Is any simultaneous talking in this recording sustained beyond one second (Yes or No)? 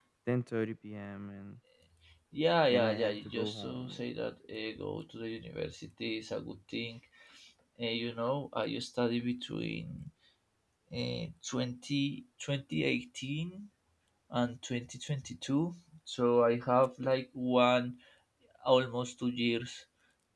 Yes